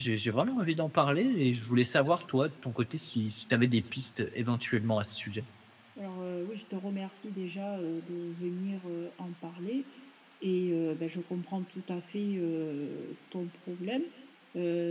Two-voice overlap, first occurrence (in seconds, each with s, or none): none